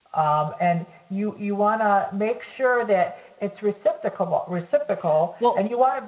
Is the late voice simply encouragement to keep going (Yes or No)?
Yes